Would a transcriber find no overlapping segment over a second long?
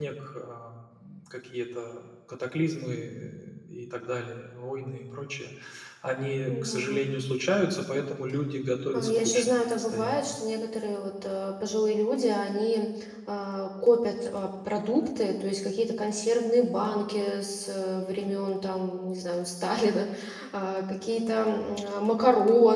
No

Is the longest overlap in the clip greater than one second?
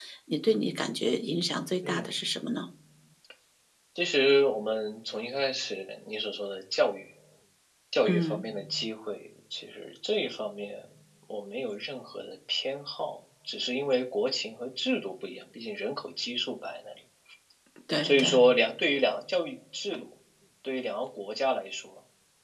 No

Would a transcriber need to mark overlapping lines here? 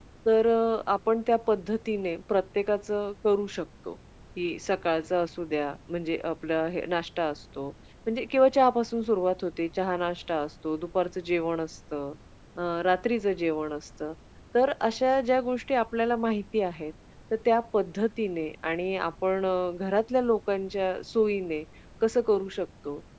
No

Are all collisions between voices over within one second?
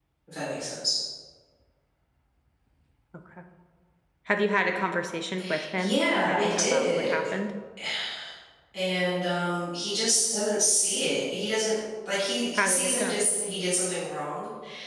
No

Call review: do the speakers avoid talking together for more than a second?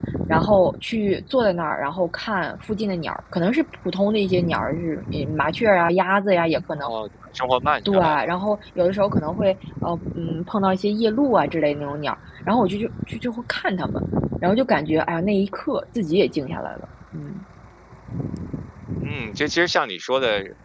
Yes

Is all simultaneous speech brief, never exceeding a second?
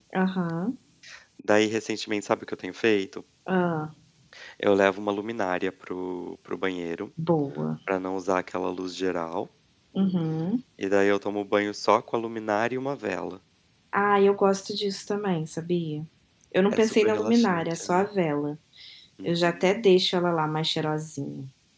No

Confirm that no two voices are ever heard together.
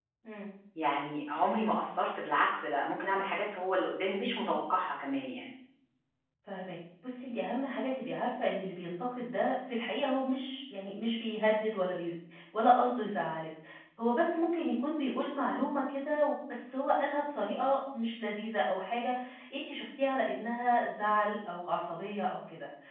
Yes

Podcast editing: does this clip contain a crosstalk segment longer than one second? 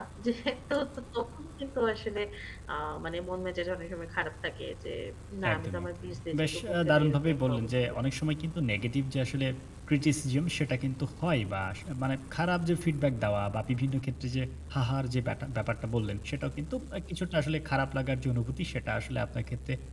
Yes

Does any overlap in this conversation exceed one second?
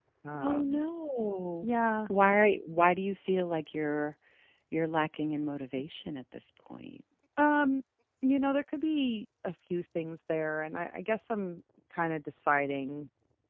No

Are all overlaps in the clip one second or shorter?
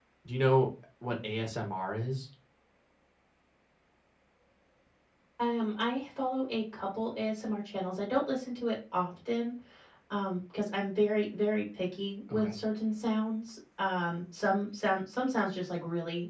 Yes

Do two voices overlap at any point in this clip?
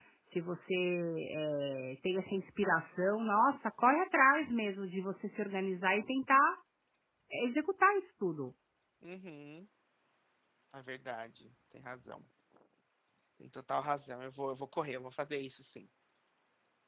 No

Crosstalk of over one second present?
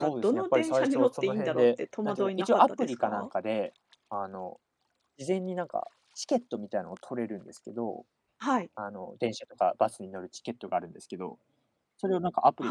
Yes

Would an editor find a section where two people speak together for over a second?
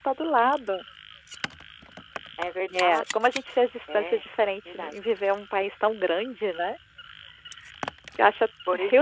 No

